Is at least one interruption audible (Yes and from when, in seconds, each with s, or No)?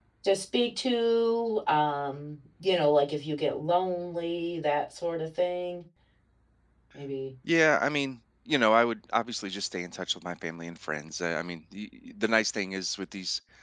No